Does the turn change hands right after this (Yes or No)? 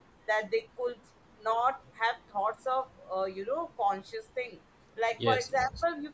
No